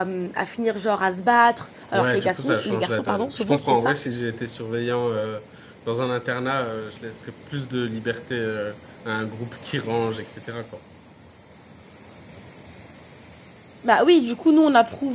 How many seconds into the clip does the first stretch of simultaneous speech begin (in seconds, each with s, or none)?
1.9 s